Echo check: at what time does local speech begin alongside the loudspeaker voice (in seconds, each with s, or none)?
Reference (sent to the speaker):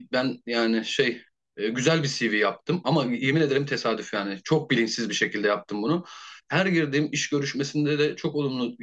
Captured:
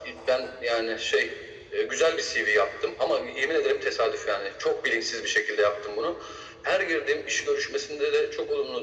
none